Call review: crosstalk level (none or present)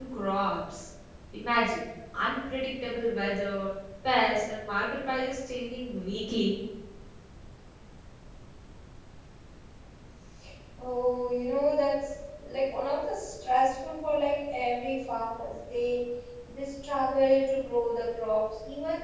none